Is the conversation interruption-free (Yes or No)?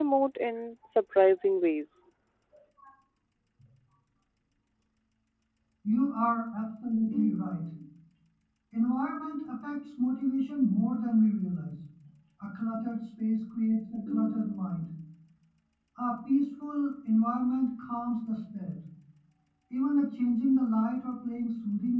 Yes